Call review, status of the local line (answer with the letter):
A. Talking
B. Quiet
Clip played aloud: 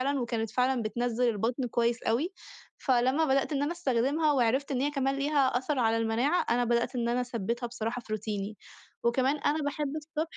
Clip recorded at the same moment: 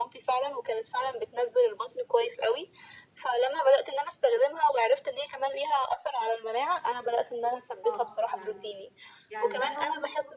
A